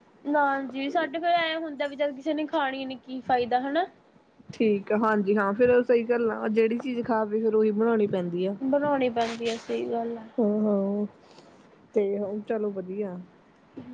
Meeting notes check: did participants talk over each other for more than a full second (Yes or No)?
No